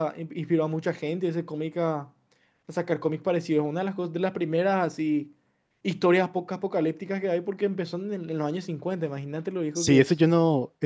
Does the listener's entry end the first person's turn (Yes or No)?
Yes